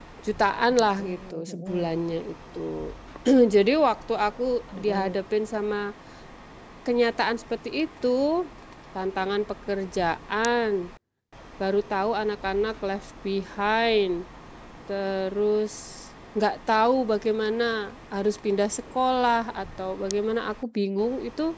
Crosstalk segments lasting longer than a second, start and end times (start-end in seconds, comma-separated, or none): 0.7-2.0